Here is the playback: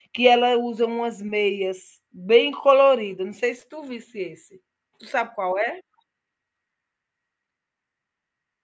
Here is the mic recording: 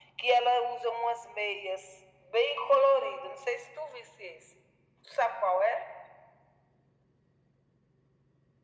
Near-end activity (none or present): none